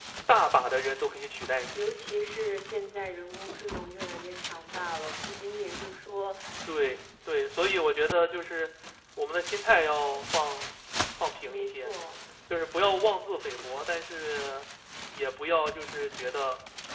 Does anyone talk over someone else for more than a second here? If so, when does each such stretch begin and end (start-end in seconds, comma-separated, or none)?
none